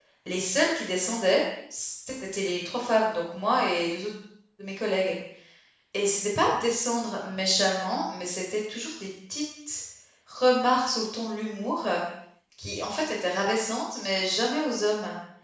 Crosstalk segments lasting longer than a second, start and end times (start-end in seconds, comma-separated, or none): none